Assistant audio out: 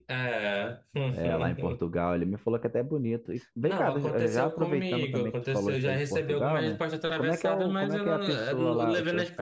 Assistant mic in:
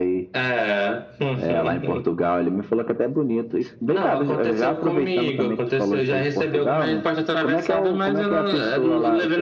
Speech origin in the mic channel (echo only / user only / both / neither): echo only